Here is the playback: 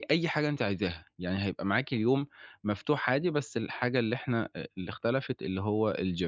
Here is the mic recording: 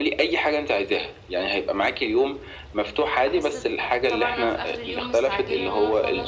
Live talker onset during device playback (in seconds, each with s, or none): 3.2 s